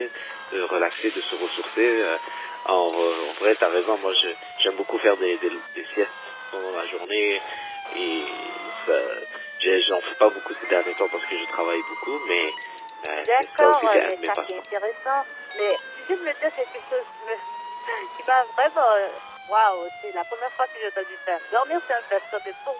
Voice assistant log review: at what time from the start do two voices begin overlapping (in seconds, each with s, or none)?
13.3 s